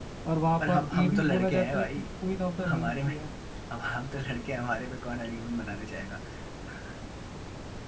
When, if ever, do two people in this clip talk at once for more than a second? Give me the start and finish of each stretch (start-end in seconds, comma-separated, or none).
0.7-2.0